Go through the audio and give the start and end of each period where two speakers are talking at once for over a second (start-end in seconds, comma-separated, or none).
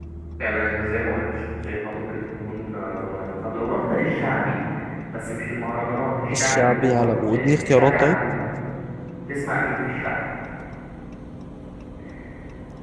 6.3-8.2